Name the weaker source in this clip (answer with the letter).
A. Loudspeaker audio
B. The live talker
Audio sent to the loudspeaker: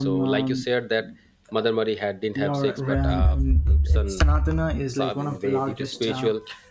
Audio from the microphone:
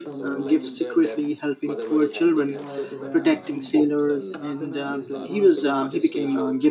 A